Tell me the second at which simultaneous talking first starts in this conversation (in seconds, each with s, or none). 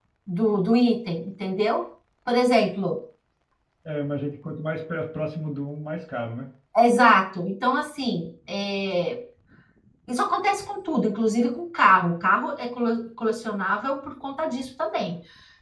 none